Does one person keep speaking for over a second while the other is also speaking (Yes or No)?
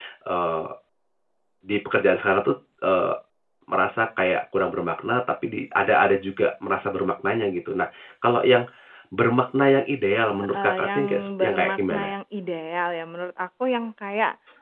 Yes